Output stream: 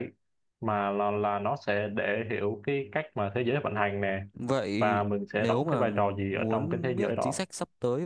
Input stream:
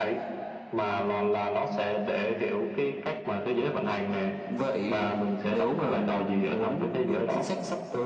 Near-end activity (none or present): none